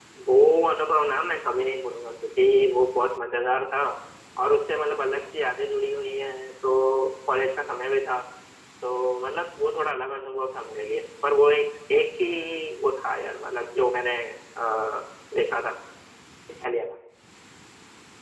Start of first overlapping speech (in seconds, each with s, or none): none